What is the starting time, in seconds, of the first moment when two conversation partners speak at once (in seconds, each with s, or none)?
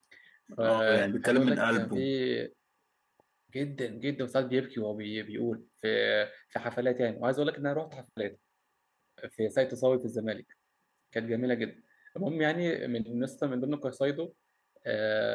0.6 s